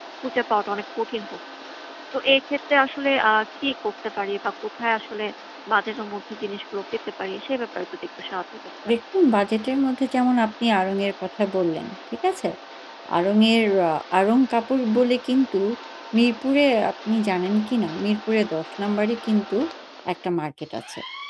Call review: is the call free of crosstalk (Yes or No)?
Yes